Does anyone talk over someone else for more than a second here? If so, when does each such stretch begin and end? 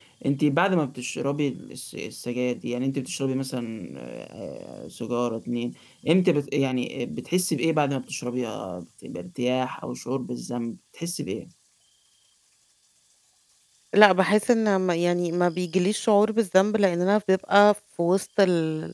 none

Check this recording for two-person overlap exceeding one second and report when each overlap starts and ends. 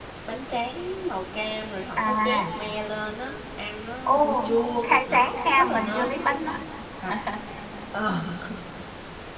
4.8-6.1

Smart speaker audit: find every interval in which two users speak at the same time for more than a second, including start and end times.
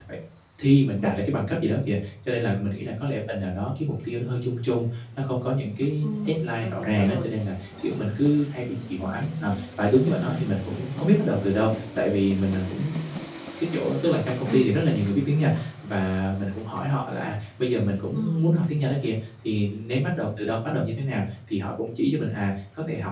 6.0-7.3

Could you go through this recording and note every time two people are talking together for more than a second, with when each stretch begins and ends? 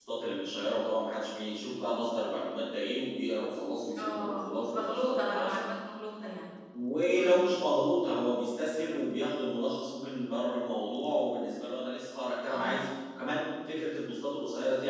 4.0-5.6

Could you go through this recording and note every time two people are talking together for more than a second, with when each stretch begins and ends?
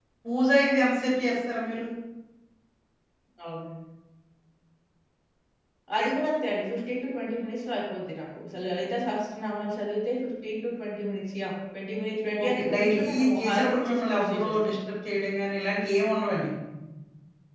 12.4-14.8

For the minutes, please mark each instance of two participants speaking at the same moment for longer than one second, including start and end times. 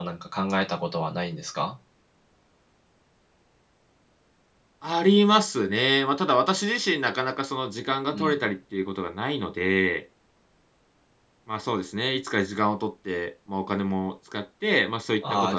none

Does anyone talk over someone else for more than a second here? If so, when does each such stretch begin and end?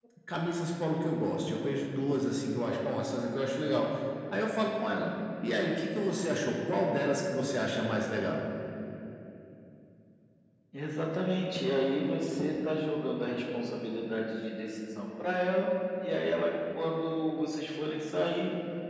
none

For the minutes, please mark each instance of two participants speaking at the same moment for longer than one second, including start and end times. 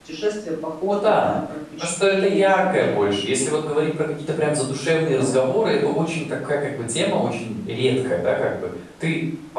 1.8-3.2

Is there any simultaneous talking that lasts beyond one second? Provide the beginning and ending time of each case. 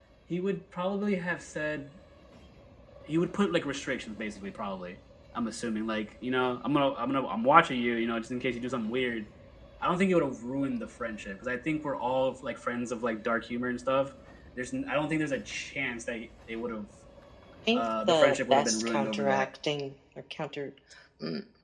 17.7-19.5

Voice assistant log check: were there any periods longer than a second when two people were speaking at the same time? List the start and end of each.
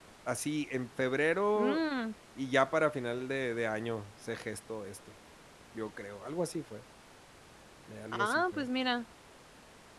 none

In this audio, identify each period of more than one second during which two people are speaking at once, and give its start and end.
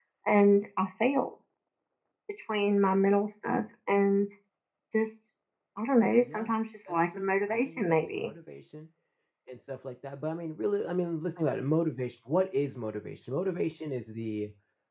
6.9-8.3

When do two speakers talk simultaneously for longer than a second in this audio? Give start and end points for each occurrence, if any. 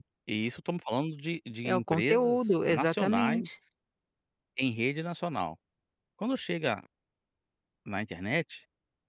1.6-3.5

